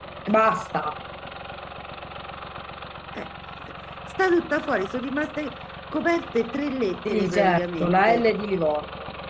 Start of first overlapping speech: 7.0 s

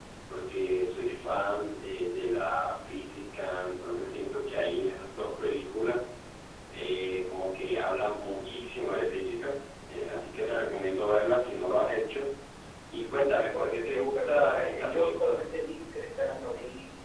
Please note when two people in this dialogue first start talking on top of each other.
13.5 s

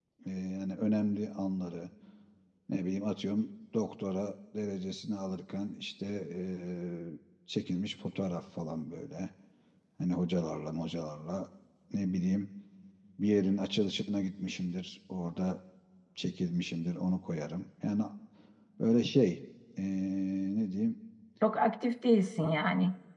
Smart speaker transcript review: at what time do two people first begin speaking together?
none

